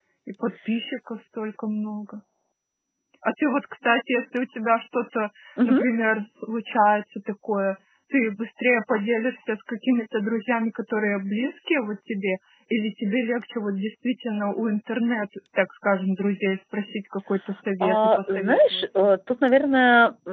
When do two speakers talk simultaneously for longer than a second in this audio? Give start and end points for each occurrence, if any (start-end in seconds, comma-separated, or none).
17.8-19.1